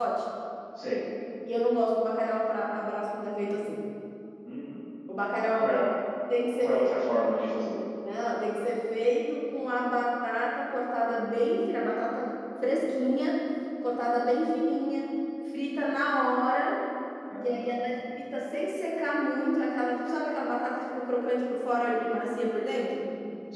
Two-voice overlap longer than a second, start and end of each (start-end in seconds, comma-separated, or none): none